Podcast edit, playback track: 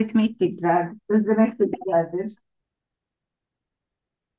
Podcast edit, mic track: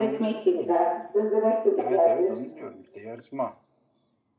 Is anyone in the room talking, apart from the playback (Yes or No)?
Yes